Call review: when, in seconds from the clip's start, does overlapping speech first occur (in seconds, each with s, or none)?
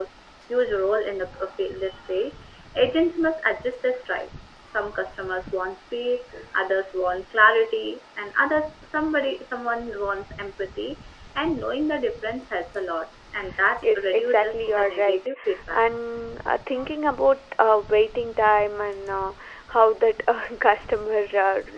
13.8 s